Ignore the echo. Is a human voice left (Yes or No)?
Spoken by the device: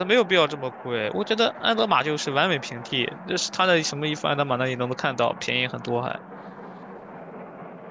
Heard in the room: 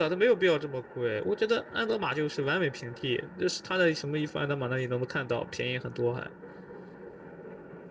No